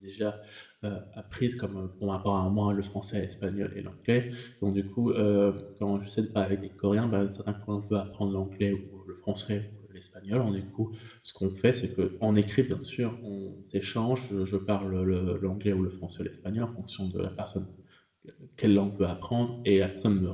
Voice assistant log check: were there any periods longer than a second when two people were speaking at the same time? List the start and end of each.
none

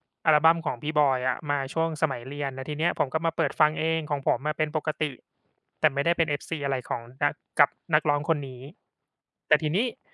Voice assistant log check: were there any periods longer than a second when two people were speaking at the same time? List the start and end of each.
none

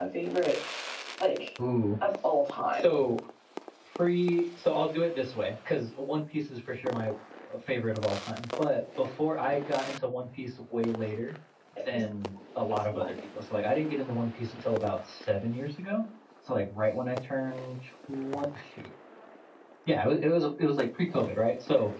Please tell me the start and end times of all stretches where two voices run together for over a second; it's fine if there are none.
none

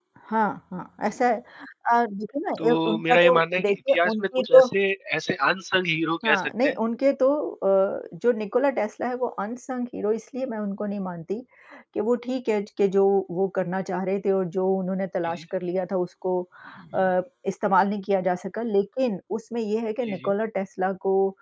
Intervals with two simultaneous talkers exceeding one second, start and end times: 2.6-4.6

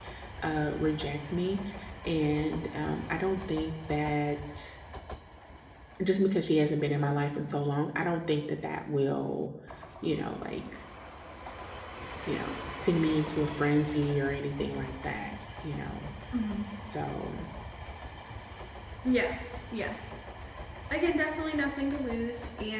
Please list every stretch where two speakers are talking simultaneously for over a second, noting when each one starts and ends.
none

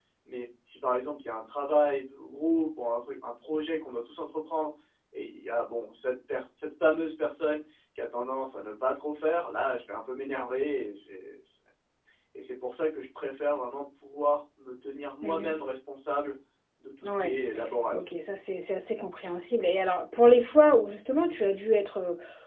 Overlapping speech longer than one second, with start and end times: none

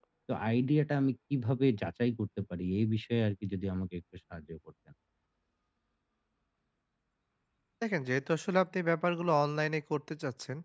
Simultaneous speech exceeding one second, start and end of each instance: none

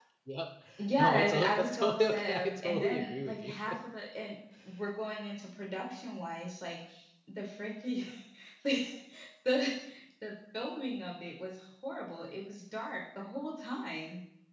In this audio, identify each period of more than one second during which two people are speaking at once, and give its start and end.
1.0-3.5

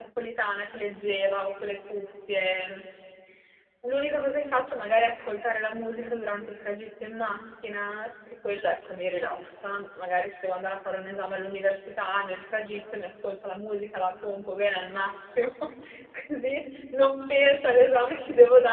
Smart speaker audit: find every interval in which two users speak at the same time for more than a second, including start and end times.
none

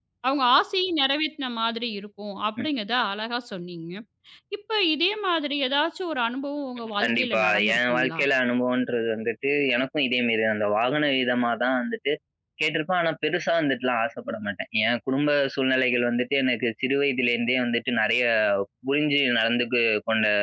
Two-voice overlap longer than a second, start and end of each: 7.0-8.2

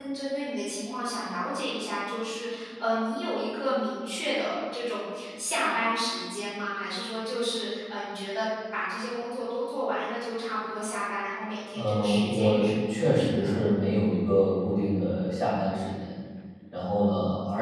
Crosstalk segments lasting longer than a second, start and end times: 11.8-13.5

